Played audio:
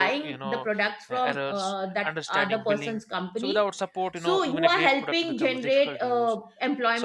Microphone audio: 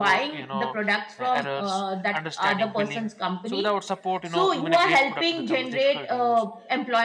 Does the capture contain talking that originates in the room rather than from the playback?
No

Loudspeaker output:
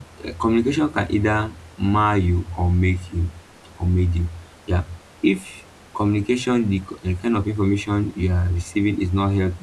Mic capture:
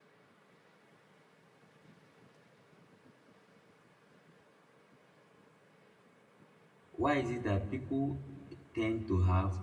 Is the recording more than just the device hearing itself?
Yes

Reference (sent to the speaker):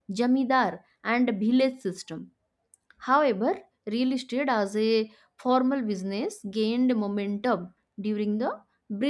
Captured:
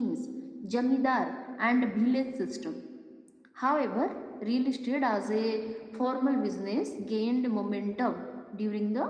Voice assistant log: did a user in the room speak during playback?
No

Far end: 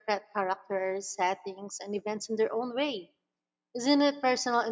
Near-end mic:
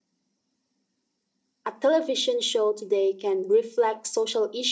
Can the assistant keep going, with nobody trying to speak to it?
No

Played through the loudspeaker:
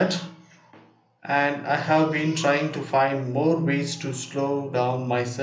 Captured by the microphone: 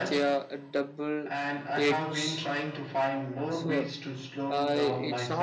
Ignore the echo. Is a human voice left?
Yes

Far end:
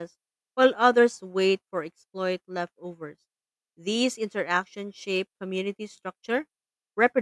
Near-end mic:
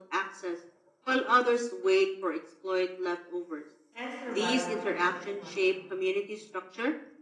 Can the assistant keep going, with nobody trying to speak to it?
No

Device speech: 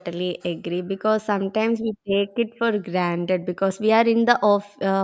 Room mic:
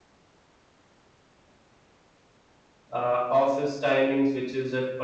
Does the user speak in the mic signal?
Yes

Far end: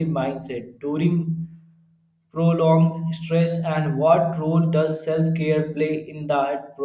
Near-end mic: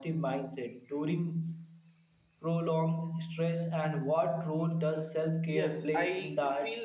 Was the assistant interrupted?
Yes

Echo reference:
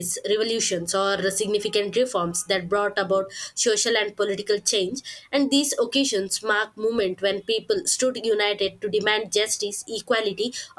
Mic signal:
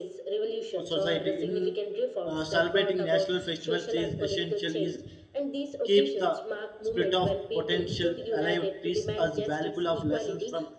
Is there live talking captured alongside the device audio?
Yes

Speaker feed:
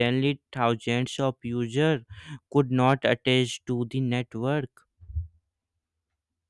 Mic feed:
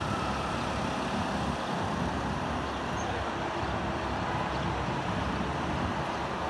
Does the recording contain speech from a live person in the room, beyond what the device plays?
No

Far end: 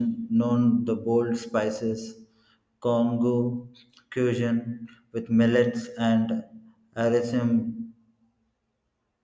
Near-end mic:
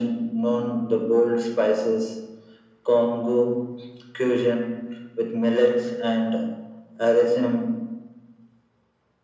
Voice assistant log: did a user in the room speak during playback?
No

